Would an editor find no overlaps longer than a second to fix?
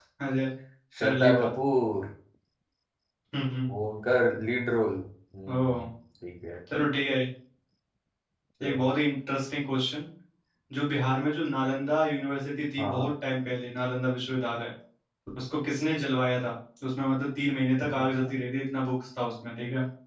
Yes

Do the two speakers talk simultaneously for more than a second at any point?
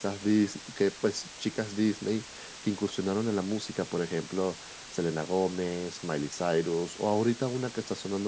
No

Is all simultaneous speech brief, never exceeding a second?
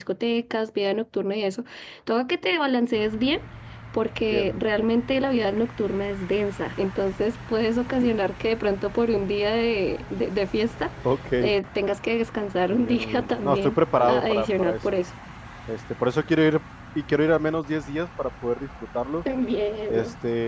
No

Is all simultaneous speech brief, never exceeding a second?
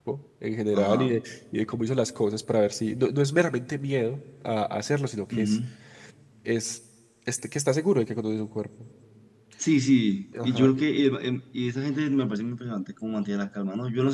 Yes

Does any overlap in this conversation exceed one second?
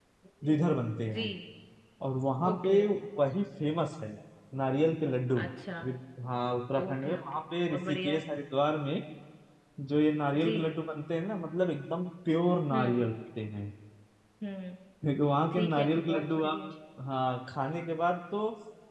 Yes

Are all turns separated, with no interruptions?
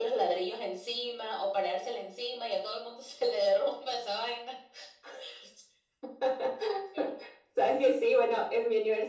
Yes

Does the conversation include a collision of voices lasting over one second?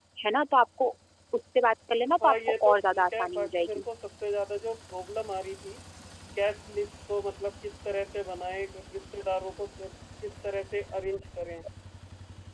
Yes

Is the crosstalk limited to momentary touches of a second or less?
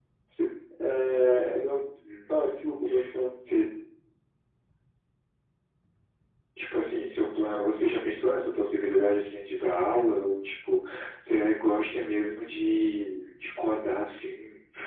Yes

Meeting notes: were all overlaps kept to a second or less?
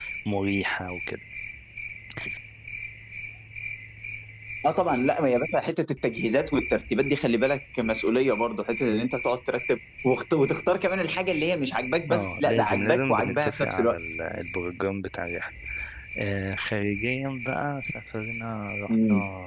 No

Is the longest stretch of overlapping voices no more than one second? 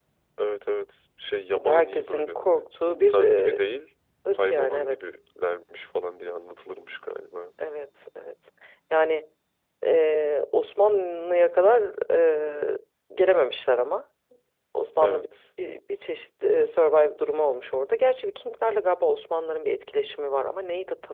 No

